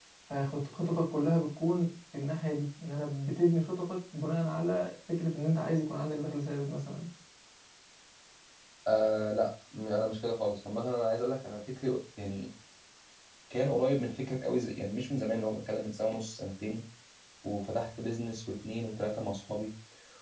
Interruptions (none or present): none